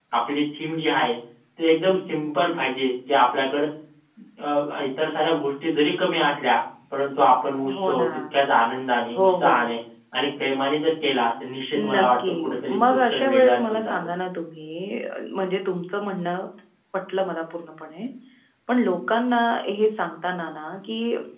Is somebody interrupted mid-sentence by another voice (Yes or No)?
Yes